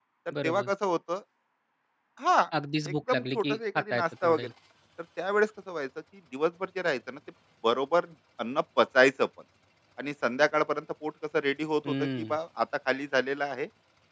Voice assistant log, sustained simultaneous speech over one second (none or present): present